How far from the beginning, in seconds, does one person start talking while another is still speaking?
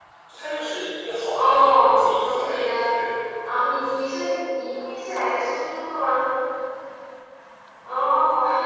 1.3 s

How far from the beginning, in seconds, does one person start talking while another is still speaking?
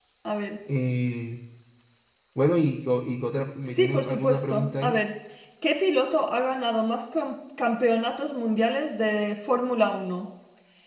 3.7 s

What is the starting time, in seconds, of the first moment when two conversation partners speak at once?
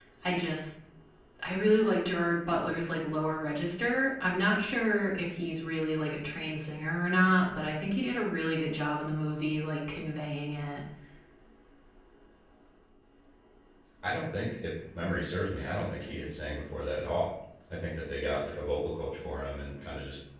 none

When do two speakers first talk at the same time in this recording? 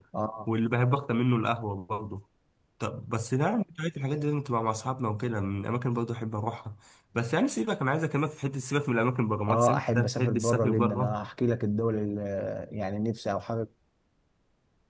9.5 s

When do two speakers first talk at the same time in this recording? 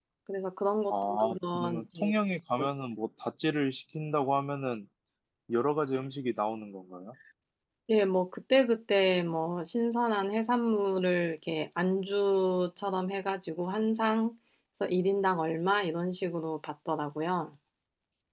0.9 s

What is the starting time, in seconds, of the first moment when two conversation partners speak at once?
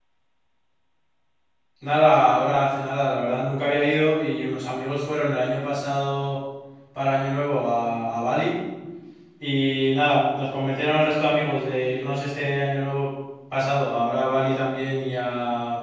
none

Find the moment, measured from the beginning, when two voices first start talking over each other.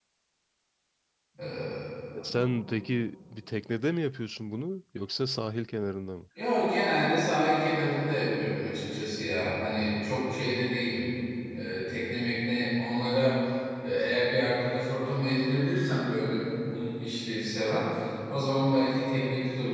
none

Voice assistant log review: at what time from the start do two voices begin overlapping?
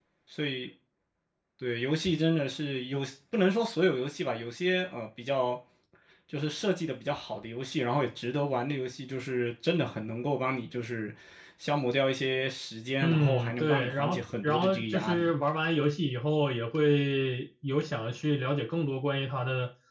13.0 s

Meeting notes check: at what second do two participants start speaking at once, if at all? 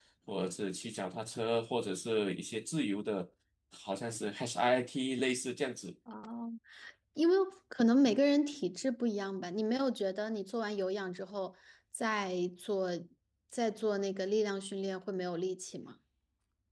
none

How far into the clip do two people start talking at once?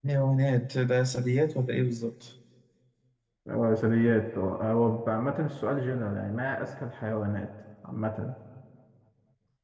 none

